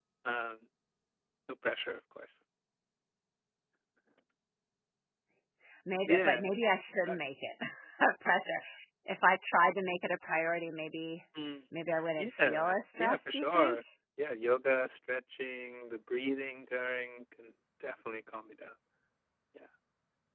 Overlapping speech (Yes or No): Yes